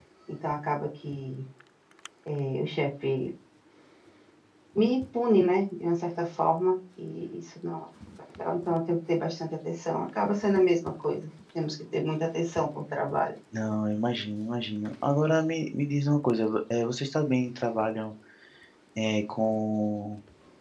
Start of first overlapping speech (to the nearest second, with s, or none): none